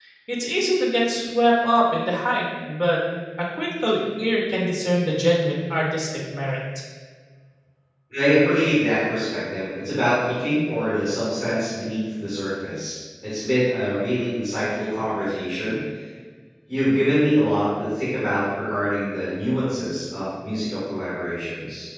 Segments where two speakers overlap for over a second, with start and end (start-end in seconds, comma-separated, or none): none